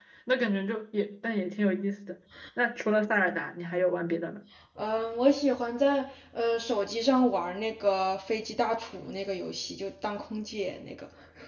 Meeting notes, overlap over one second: none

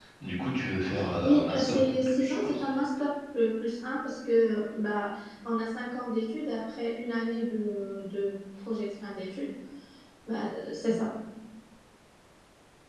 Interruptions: present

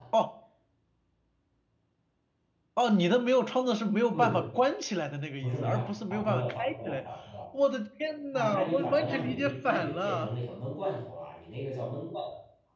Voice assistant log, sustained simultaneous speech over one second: present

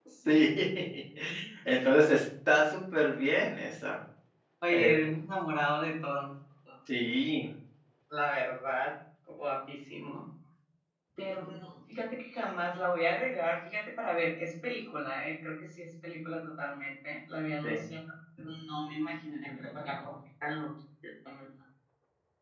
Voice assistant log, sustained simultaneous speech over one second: none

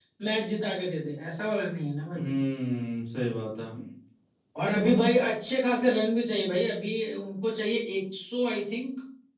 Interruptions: none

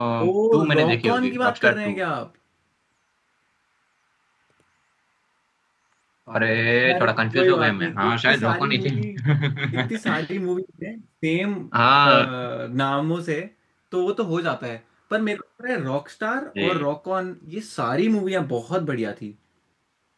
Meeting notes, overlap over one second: present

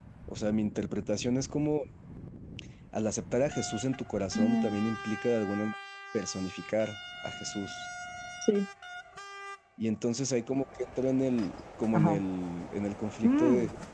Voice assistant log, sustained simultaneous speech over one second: none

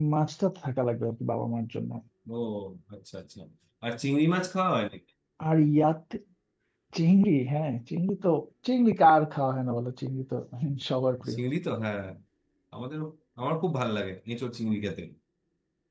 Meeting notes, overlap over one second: none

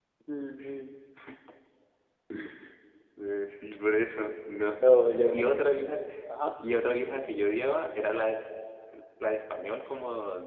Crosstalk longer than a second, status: none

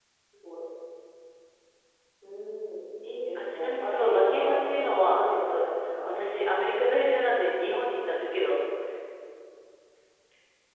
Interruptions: present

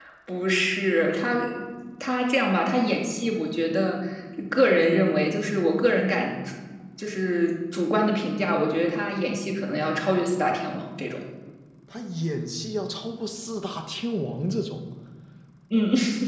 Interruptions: none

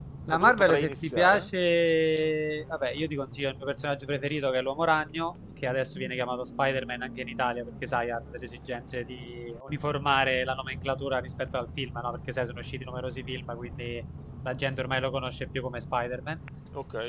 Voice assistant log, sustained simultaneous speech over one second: present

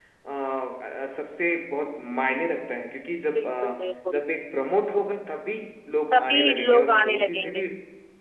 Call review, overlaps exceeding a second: present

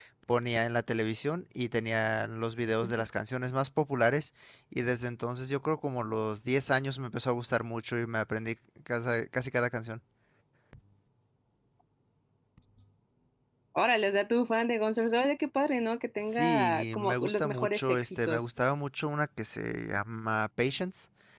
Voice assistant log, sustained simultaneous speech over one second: present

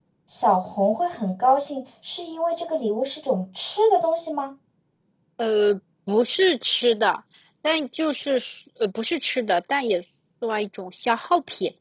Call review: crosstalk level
none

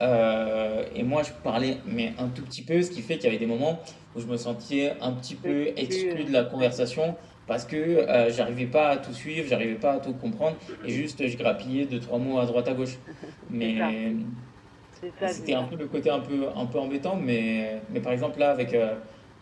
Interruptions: present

